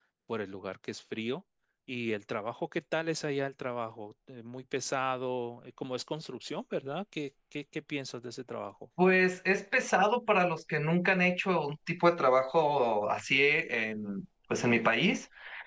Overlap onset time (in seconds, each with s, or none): none